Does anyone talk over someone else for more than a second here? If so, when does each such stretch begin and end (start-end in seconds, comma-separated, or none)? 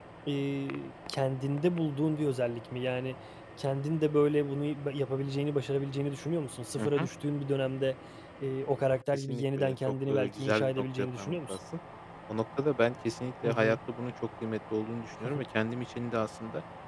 9.1-11.6